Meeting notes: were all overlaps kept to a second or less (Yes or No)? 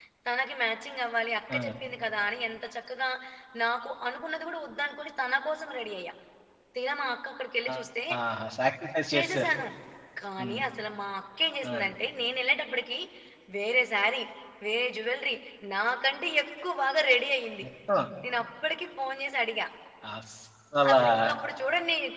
Yes